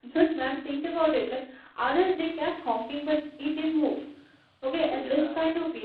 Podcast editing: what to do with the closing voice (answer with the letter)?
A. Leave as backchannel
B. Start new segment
A